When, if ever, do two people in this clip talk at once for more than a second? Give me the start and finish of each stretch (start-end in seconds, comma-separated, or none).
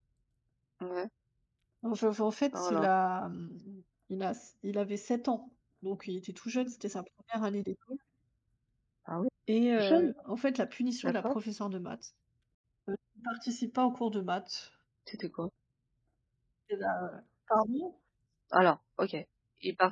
none